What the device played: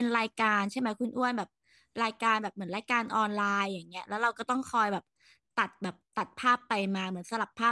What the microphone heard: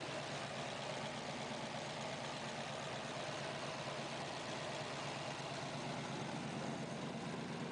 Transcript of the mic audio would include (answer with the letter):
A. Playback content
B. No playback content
B